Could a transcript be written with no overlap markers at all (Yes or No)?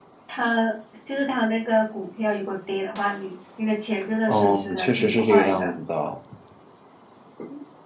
No